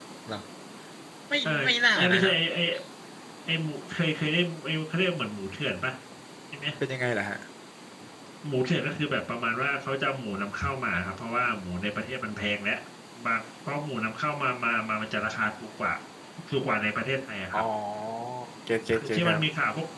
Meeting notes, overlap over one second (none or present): none